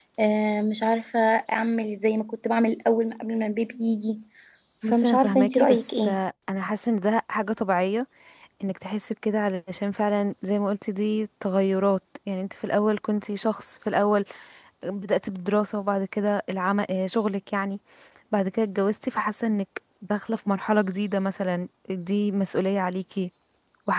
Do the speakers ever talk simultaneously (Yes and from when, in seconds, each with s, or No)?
Yes, from 4.9 s